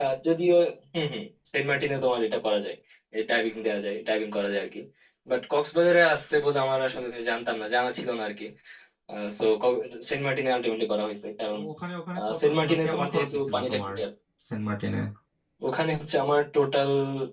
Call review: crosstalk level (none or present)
present